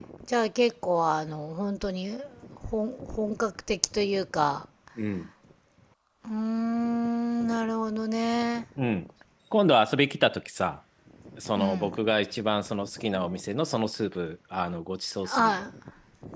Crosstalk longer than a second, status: none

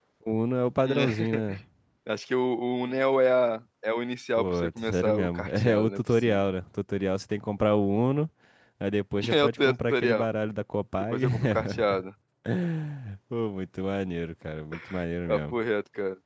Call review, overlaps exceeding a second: present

